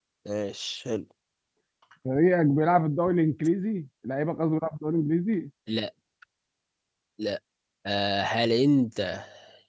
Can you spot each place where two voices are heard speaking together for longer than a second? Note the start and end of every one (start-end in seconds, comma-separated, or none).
none